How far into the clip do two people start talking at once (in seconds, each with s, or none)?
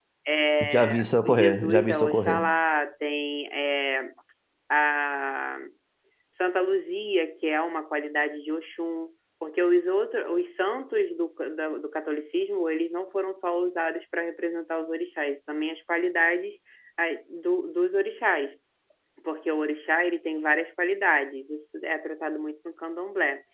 0.6 s